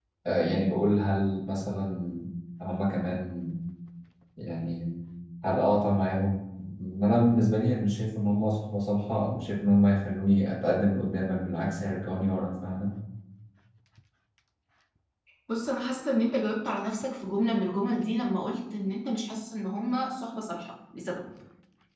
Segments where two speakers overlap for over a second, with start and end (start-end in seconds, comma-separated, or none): none